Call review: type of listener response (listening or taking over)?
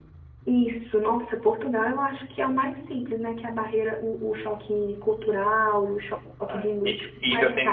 taking over